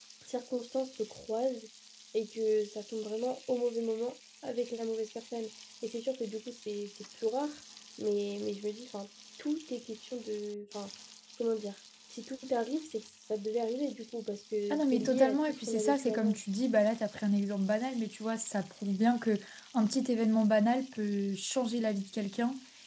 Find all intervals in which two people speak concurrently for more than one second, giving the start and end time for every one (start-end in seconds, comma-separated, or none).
14.7-16.4